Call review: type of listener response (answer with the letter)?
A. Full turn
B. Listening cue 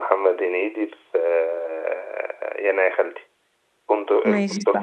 A